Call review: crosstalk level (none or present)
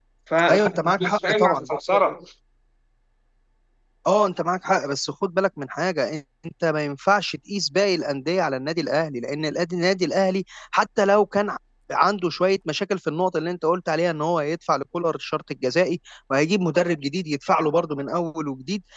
present